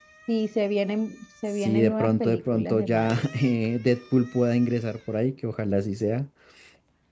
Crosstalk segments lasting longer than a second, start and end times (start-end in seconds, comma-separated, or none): 1.6-3.2